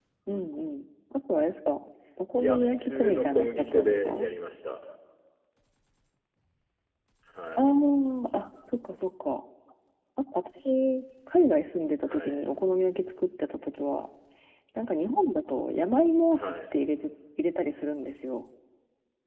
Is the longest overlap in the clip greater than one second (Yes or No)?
Yes